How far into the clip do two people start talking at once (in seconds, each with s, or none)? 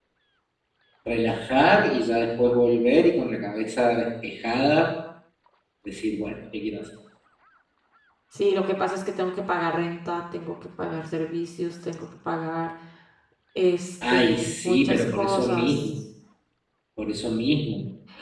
14.1 s